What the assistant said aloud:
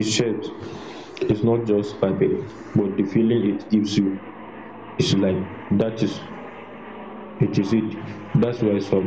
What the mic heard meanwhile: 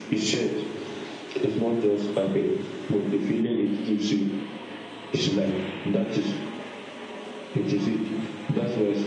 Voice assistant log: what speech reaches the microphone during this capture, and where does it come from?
echo only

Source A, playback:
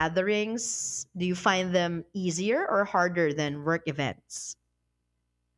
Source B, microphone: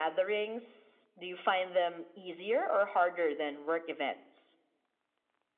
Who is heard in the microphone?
echo only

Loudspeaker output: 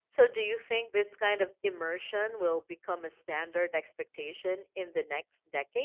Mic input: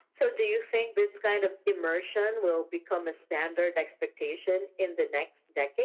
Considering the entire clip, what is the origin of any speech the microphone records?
echo only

